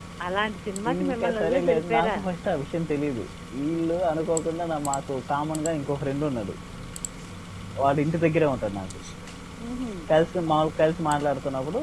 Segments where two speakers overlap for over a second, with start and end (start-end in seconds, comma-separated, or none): 0.9-2.2